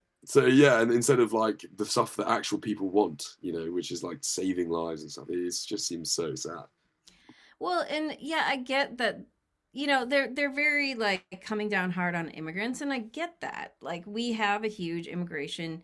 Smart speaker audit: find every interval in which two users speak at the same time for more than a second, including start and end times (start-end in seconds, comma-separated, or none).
none